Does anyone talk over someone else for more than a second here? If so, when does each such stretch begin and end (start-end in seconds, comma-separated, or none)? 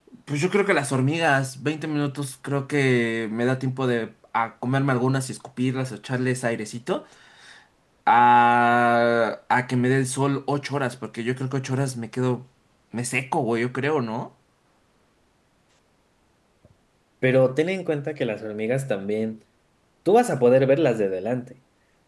none